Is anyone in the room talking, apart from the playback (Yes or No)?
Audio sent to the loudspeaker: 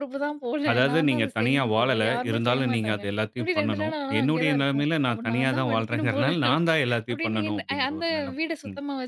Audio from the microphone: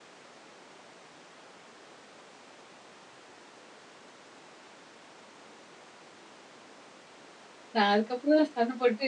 Yes